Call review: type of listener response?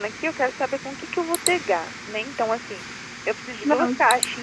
listening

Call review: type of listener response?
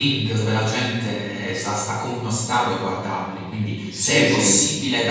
listening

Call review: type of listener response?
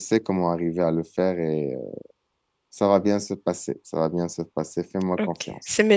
taking over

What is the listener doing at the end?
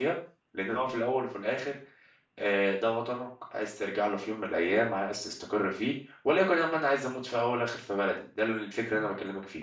taking over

